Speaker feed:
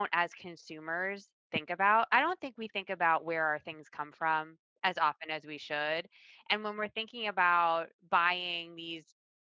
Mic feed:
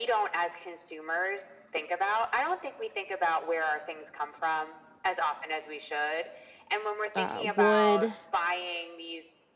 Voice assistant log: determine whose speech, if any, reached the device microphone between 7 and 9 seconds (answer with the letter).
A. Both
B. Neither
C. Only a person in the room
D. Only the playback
A